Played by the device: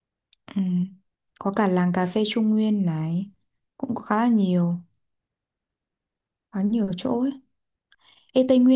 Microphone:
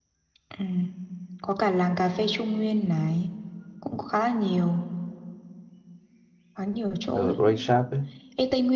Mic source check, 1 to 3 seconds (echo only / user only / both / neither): echo only